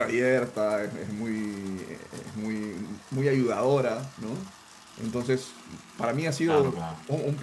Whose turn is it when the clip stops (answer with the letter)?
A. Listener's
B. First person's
B